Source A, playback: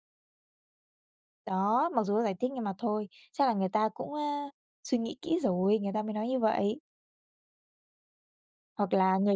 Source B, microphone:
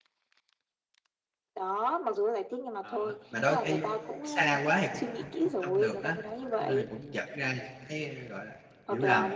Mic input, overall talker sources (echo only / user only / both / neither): both